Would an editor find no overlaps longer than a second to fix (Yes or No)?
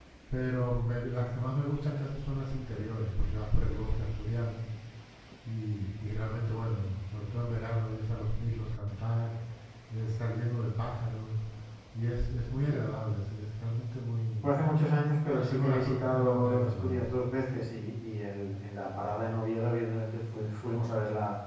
No